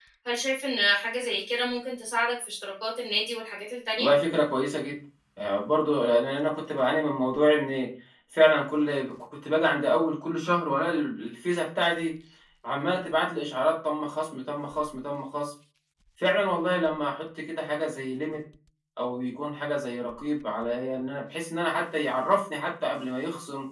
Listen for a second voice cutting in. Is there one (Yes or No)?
No